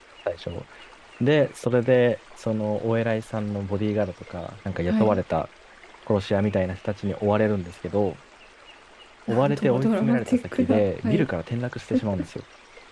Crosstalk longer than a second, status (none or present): present